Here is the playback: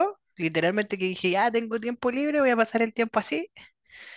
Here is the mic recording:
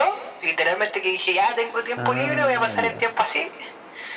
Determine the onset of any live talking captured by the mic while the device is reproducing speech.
2 s

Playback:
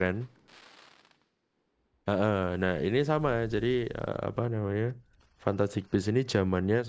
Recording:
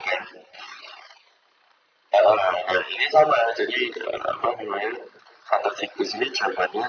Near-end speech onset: none

